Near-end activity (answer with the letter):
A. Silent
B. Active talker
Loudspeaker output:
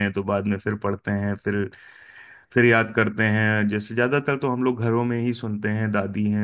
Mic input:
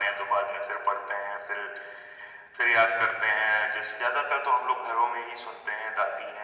A